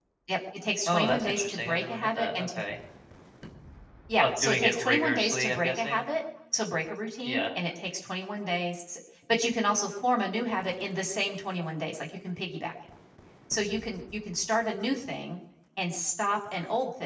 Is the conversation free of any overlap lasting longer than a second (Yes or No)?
No